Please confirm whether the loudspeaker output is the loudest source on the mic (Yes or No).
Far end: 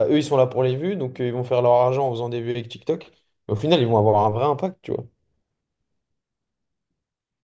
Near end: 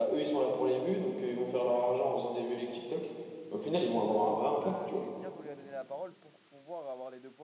Yes